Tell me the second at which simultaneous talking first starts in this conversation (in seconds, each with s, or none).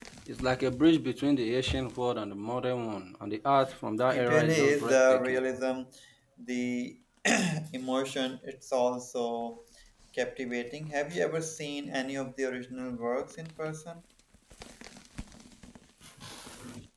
4.1 s